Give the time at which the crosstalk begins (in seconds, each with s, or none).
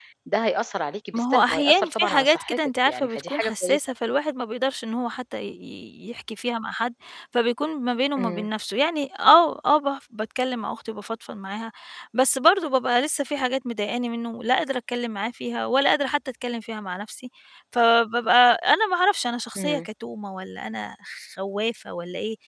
1.1 s